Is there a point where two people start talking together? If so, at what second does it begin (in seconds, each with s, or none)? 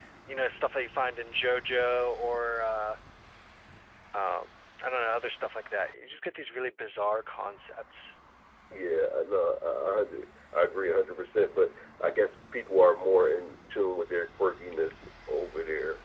none